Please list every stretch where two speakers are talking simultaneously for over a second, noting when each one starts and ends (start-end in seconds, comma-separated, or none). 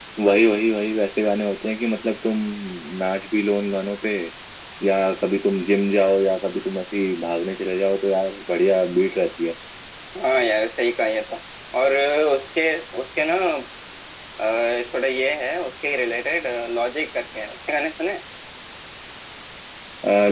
none